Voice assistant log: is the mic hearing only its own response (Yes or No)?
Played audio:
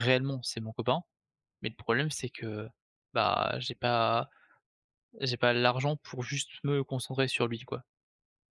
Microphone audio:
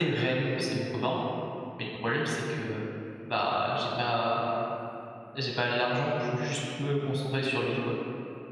Yes